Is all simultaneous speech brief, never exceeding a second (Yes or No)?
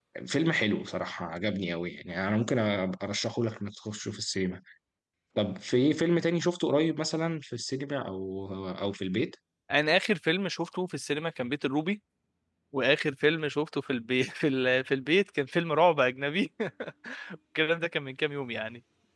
Yes